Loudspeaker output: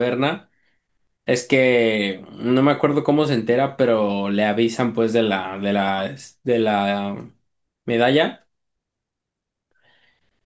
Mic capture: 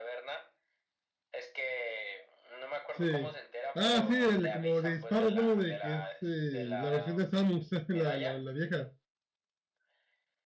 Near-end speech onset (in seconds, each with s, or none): 2.9 s